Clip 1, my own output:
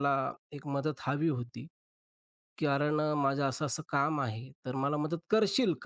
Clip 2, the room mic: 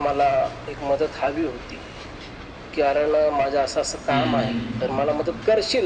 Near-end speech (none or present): present